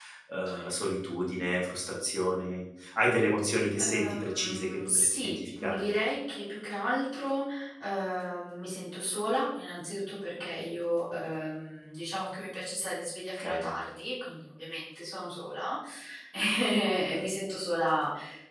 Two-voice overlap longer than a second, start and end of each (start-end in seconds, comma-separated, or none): 3.8-5.8